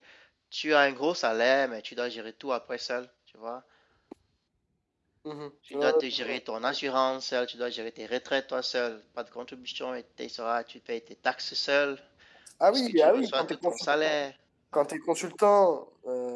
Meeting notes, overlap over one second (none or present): present